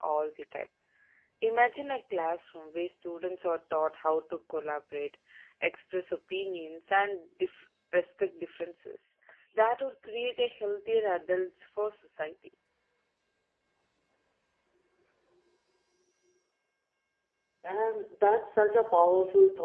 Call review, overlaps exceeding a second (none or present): none